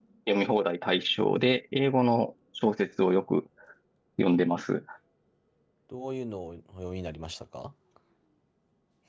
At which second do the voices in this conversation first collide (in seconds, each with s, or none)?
none